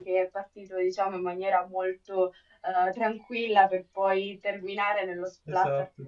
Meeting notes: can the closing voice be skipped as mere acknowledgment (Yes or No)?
Yes